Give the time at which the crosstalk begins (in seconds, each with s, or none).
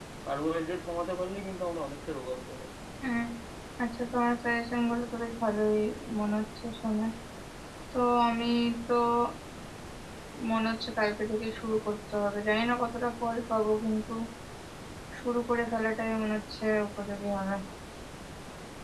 none